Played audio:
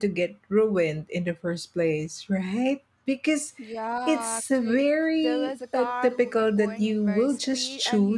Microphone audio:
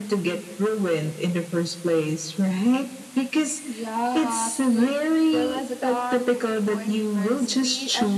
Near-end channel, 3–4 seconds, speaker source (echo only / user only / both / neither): echo only